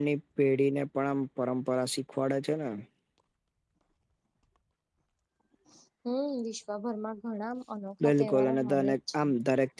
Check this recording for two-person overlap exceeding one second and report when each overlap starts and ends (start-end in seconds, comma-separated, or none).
8.0-9.2